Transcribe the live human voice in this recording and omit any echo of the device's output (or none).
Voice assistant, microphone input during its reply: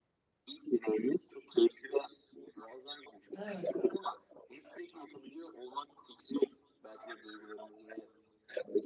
Evet.